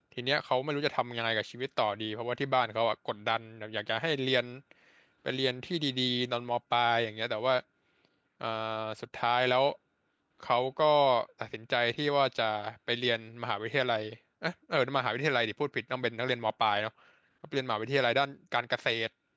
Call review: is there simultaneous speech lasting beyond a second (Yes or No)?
No